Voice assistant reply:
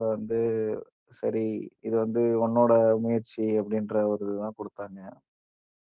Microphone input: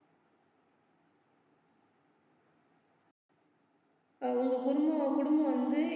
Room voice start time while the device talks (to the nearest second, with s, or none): 4 s